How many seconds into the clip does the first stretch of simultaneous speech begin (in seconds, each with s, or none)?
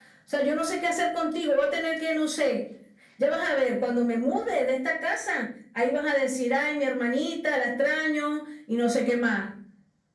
none